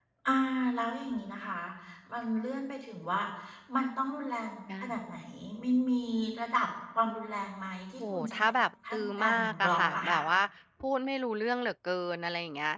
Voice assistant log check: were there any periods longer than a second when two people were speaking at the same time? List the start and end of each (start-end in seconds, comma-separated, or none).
8.9-10.2